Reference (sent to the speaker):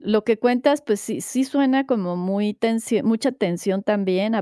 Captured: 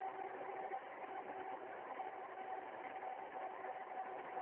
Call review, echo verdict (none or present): none